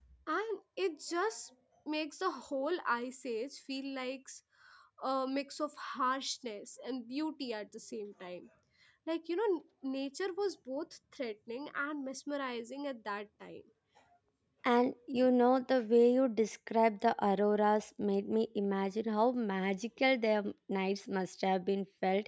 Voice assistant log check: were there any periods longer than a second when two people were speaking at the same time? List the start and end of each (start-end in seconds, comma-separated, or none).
none